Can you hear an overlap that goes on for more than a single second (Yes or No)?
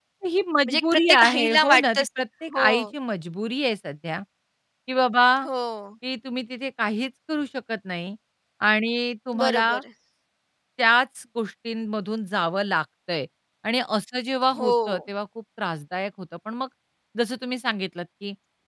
Yes